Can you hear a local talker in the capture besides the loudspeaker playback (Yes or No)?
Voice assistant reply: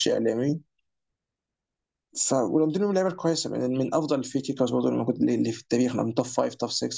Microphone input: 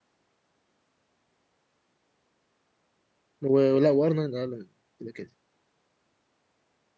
Yes